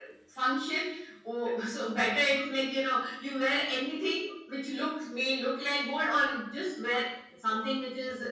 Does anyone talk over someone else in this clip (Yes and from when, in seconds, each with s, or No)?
No